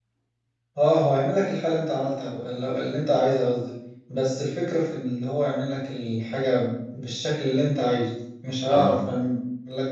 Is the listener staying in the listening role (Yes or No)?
Yes